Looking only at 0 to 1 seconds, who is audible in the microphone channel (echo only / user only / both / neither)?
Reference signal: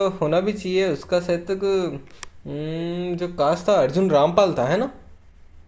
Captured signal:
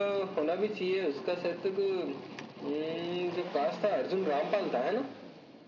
echo only